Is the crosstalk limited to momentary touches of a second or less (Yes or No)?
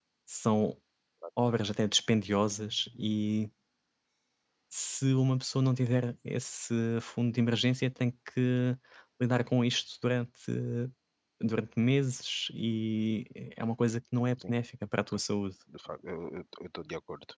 Yes